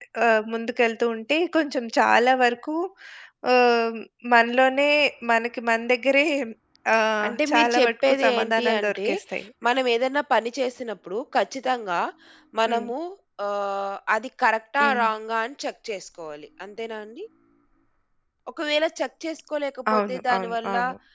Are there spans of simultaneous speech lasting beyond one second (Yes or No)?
Yes